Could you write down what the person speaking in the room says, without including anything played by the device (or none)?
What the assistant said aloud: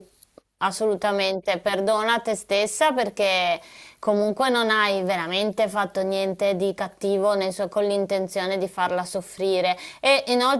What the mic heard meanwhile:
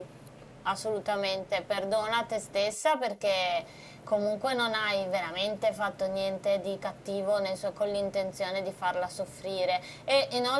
none